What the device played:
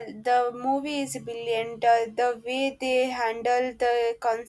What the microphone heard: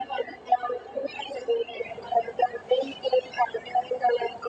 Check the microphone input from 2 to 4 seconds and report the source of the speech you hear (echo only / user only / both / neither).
echo only